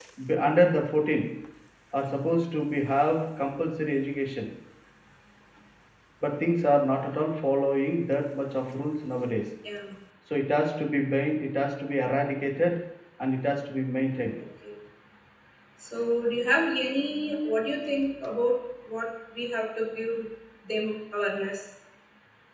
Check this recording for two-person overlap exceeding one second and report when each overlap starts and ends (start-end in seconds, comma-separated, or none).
none